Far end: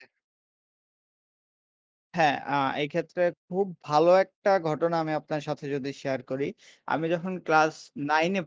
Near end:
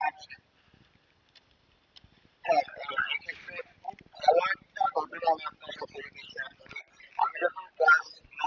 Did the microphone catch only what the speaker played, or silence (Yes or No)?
Yes